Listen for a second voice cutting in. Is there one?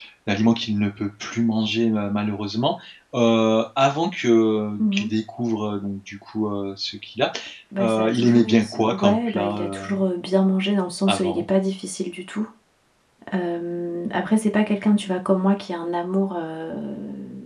Yes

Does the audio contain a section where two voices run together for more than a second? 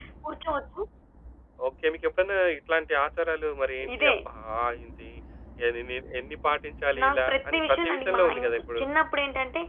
Yes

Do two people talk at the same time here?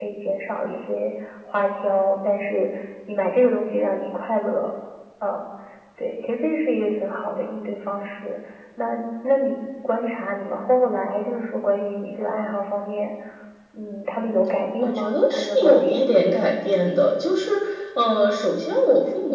Yes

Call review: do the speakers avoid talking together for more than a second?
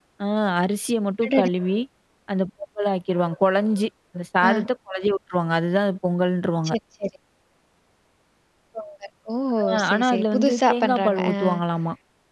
No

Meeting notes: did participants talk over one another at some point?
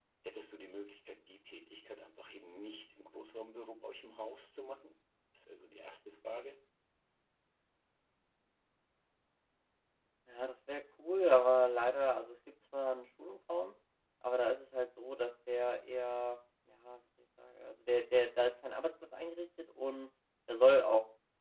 No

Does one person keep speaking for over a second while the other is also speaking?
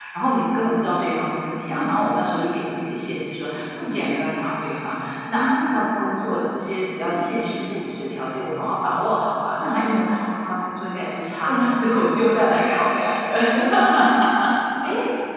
No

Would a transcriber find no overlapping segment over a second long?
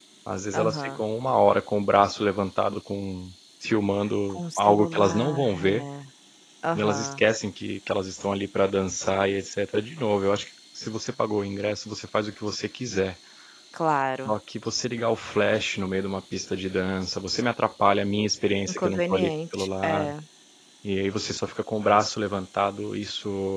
No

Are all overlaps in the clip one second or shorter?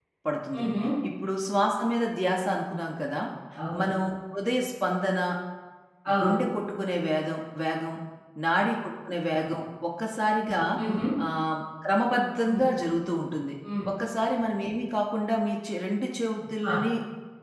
Yes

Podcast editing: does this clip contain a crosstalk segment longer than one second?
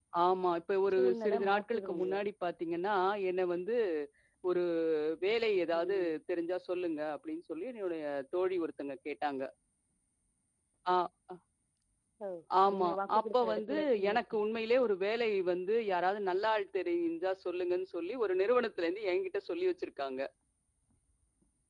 Yes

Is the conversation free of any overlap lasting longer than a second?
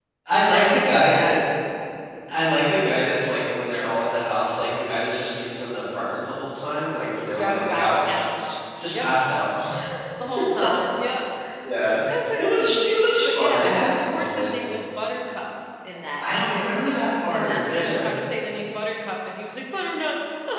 No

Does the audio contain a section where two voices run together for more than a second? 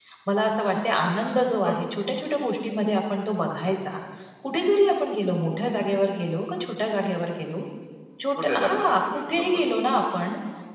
Yes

